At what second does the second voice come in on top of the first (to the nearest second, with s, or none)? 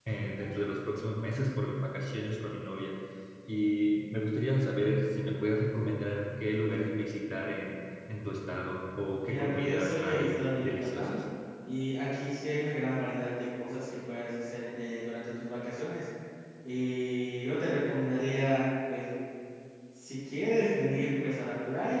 9 s